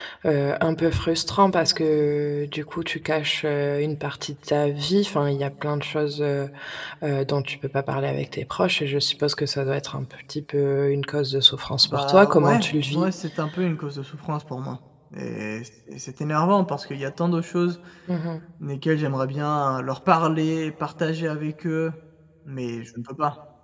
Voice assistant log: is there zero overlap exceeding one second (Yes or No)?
No